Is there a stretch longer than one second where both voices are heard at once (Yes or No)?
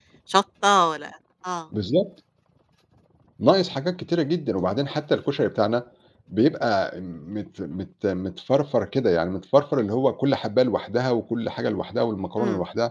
No